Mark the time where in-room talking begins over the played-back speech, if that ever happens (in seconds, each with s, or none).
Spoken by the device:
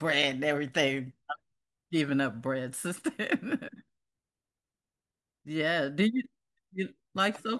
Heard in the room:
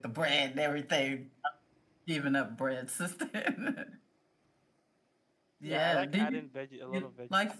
5.6 s